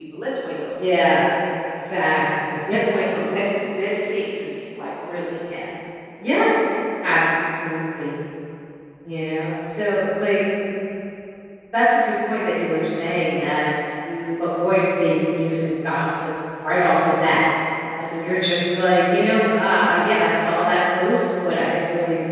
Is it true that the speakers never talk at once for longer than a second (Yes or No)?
Yes